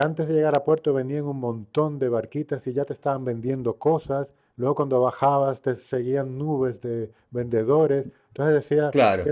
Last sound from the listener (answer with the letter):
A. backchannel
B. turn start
A